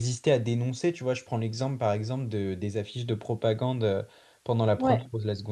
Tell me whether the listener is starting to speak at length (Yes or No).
No